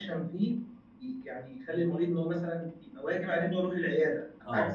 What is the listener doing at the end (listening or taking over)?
taking over